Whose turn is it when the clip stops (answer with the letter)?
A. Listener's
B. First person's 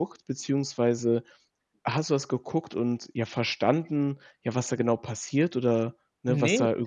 A